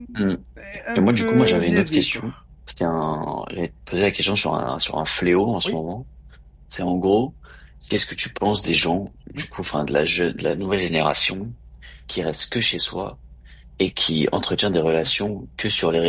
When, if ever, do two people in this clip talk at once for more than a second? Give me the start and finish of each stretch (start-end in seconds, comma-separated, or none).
0.9-2.2